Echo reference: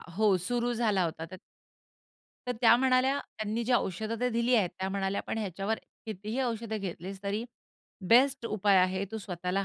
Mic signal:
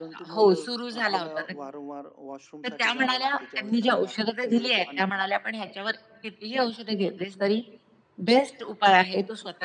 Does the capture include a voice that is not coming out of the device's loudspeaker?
Yes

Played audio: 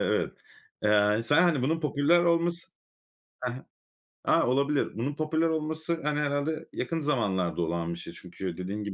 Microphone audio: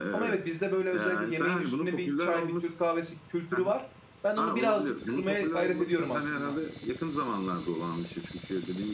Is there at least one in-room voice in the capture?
Yes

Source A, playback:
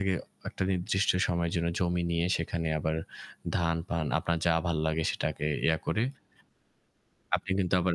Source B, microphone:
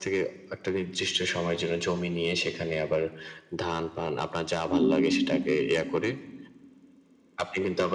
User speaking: Yes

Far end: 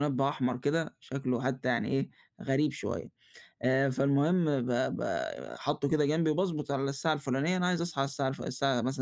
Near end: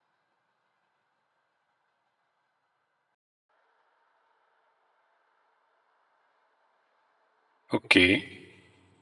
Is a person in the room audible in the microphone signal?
Yes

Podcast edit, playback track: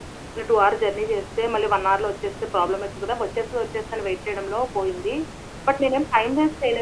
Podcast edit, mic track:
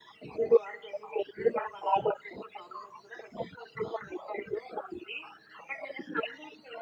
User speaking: No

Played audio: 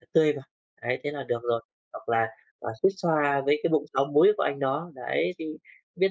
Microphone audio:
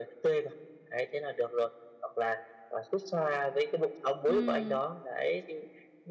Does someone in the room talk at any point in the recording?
Yes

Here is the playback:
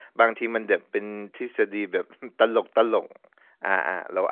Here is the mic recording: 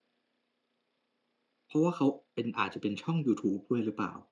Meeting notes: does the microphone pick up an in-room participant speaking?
Yes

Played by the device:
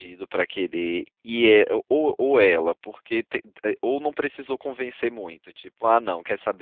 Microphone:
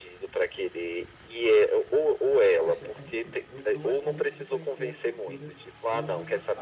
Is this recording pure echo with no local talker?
No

